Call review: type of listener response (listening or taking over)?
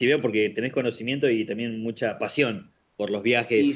taking over